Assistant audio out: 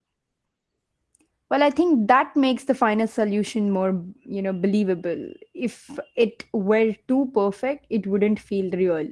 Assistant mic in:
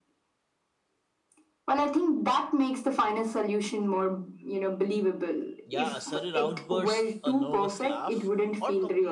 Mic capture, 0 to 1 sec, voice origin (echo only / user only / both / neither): neither